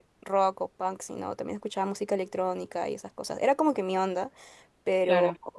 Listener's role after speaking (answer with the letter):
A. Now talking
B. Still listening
B